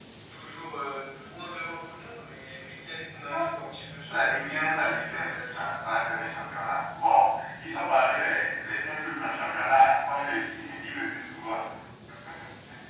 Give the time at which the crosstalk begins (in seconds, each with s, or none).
4.0 s